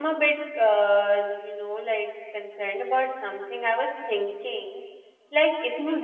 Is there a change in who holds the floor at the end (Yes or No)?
No